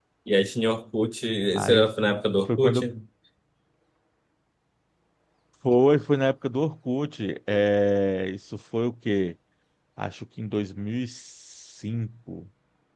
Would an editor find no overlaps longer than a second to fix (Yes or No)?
Yes